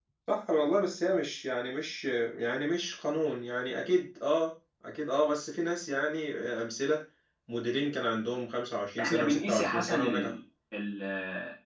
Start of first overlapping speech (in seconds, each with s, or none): 9.0 s